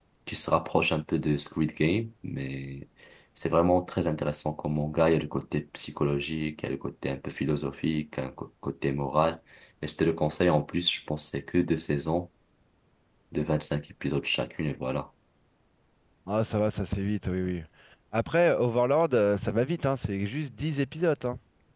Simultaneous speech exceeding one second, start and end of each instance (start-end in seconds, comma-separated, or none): none